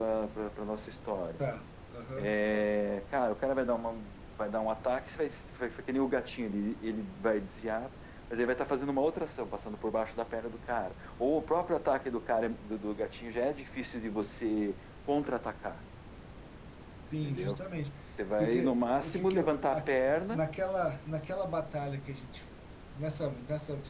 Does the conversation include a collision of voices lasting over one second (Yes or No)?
Yes